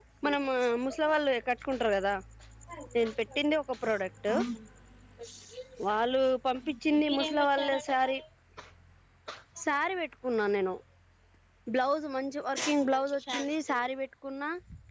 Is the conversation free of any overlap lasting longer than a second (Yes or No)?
No